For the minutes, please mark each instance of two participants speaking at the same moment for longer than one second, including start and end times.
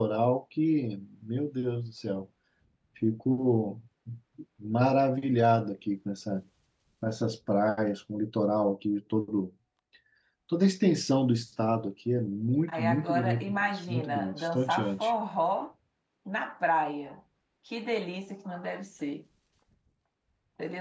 12.7-15.1

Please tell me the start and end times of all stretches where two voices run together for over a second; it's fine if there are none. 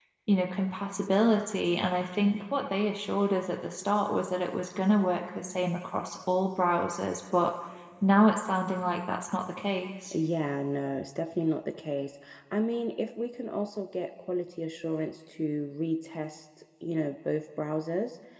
none

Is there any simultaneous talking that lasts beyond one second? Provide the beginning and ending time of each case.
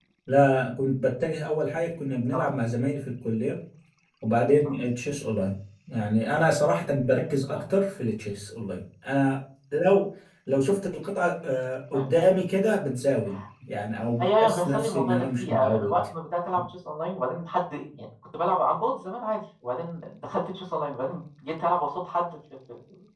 14.2-16.0

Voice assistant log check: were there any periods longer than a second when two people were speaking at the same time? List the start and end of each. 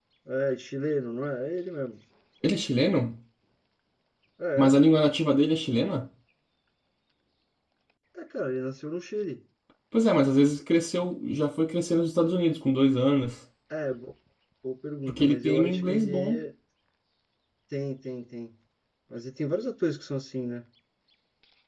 15.1-16.4

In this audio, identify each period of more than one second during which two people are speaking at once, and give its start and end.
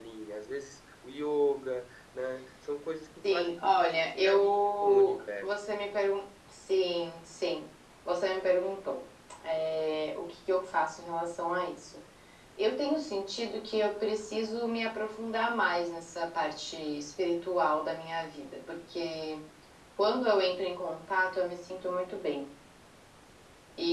3.3-5.5

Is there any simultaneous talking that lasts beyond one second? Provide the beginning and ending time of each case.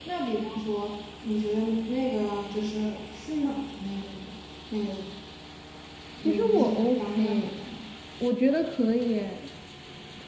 6.2-7.5

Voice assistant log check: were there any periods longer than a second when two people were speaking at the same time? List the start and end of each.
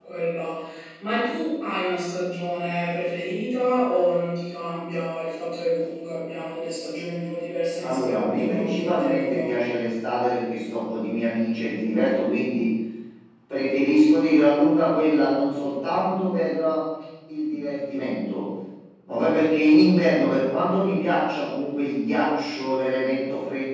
7.8-9.6

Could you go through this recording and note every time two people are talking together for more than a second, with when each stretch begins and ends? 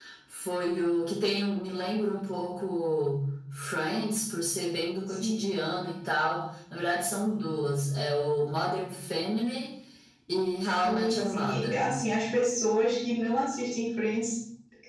10.6-11.9

